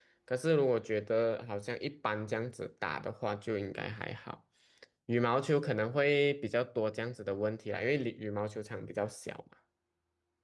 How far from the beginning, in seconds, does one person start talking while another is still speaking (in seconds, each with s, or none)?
none